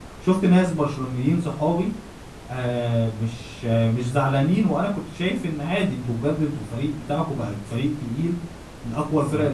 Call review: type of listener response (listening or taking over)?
listening